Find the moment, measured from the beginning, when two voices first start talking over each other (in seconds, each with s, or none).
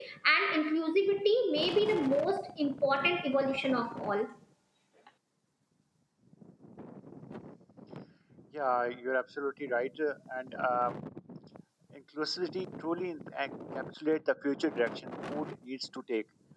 none